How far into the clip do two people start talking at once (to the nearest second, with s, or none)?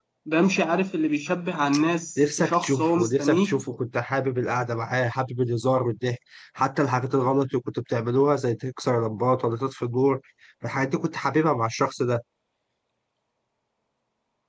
2 s